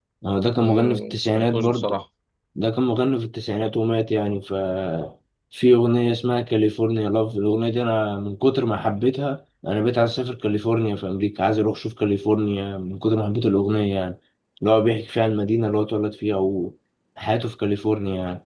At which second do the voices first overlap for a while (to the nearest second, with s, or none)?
1 s